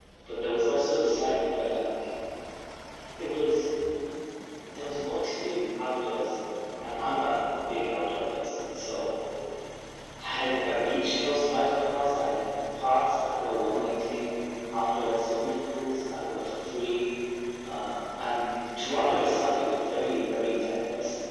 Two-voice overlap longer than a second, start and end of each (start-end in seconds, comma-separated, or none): none